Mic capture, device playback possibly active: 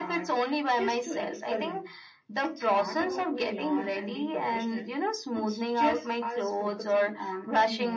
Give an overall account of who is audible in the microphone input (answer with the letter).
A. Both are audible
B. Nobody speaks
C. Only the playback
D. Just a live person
C